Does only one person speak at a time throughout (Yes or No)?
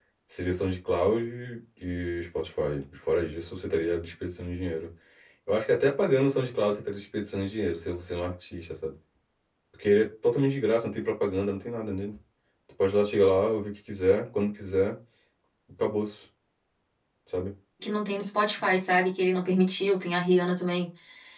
Yes